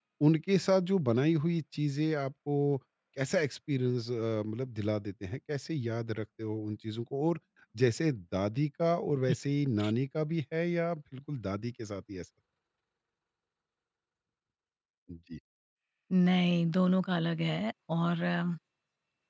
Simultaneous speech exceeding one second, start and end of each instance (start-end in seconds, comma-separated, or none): none